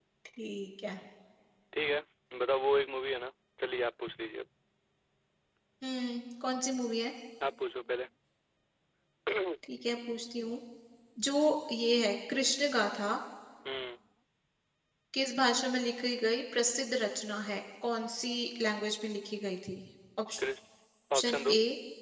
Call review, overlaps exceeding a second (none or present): none